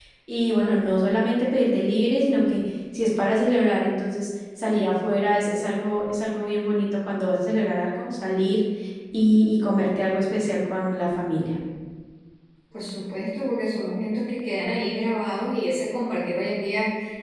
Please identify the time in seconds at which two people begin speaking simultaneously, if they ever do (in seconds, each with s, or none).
none